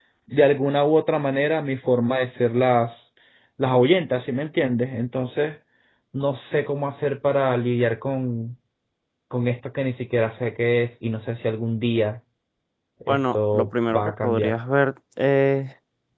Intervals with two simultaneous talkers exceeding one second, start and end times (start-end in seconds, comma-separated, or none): 13.1-14.6